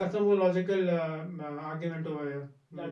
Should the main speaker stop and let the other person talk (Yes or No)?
Yes